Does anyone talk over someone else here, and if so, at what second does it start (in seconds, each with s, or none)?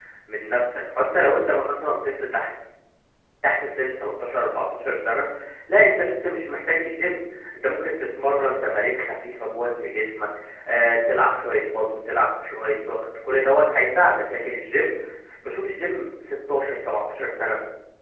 none